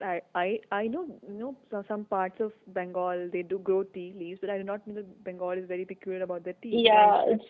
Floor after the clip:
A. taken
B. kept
A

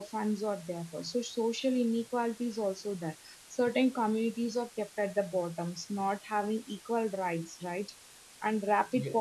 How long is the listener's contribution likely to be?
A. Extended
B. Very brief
B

